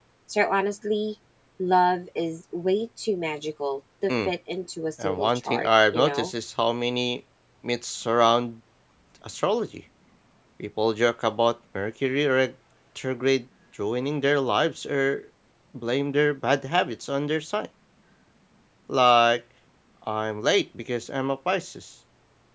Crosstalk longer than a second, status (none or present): present